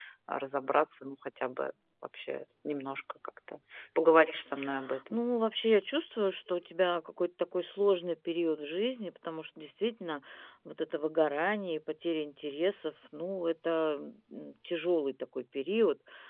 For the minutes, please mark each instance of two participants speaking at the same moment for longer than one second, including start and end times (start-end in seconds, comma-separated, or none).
none